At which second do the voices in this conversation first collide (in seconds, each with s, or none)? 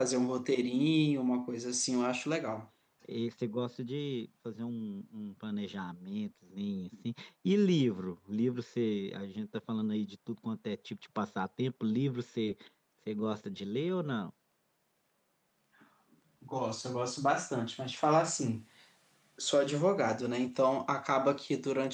none